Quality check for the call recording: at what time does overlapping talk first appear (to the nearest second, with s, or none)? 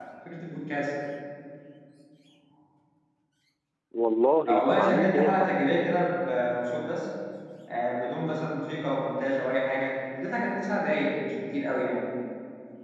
4 s